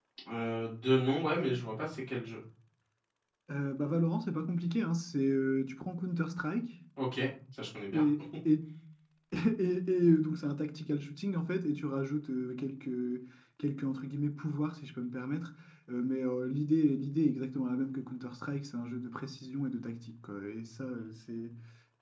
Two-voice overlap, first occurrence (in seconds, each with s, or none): none